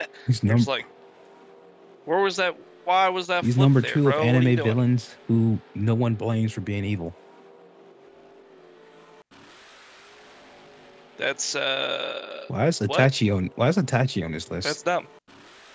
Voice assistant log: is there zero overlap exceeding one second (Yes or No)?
No